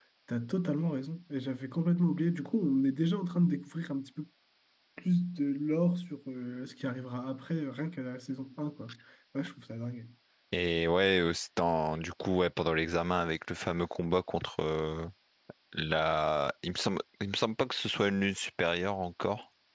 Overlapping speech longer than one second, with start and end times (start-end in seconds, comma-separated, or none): none